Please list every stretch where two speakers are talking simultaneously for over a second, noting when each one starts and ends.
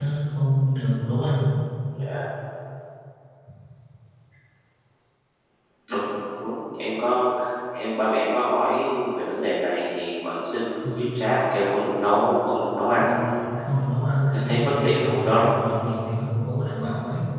14.3-15.5

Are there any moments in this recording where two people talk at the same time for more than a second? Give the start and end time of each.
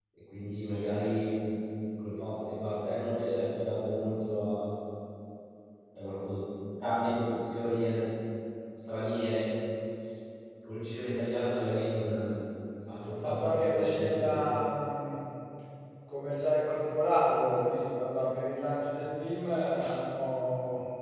13.1-14.5

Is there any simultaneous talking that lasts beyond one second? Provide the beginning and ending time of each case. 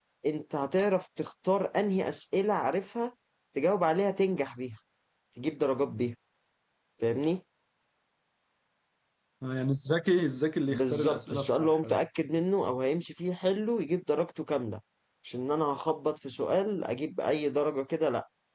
10.7-12.0

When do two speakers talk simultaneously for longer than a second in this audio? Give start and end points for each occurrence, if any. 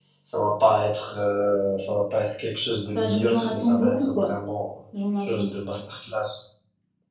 3.0-4.3

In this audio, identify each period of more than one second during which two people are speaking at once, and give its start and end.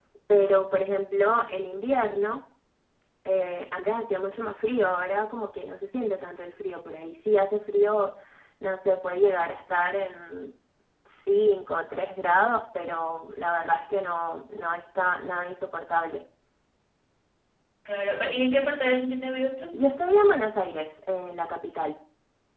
none

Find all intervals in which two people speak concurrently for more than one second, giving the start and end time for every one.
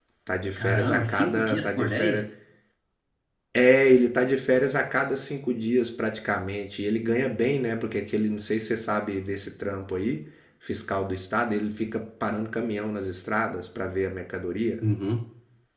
0.5-2.2

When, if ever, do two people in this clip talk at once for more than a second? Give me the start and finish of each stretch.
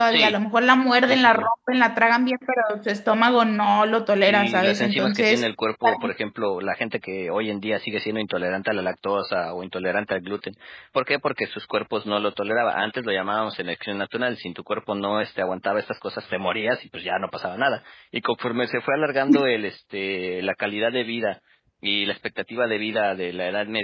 4.2-5.5

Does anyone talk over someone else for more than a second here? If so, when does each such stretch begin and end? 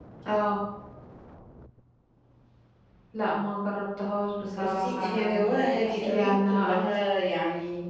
4.5-6.8

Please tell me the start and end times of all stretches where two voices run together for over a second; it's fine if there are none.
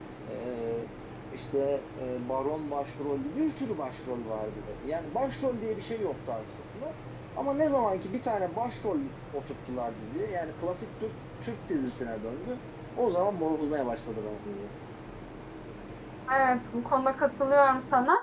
none

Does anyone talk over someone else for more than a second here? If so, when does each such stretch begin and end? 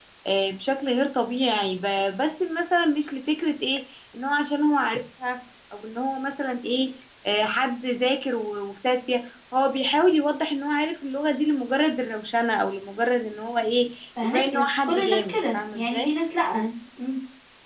14.2-16.1

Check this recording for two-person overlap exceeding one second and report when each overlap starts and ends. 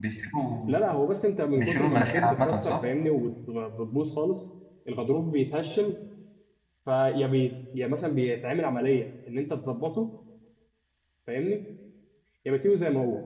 1.6-2.8

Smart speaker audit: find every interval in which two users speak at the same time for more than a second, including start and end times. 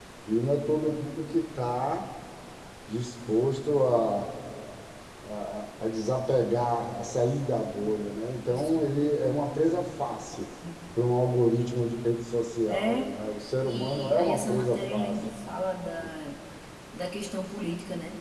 13.6-15.2

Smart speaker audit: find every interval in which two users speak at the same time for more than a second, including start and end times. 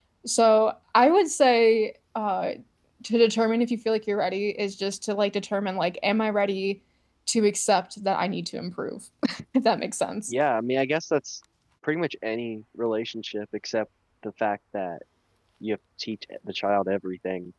none

